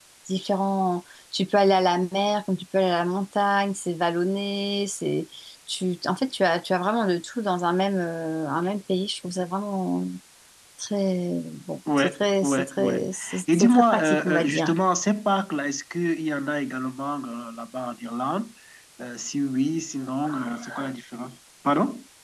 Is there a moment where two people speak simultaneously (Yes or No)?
Yes